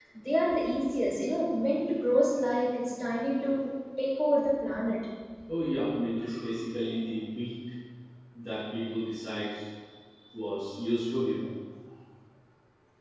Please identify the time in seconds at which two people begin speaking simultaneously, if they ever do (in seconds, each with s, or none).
none